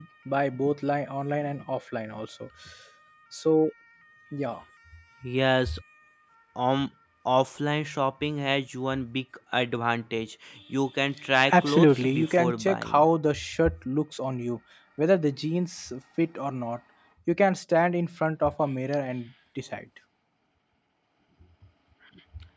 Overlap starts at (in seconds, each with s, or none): 11.5 s